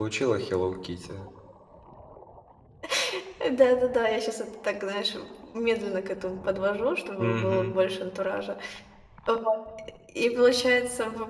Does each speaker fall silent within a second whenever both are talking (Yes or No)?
Yes